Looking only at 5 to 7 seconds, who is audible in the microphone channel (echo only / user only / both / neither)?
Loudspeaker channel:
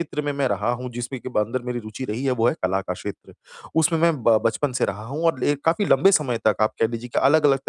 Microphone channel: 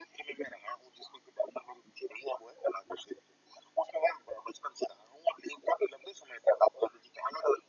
echo only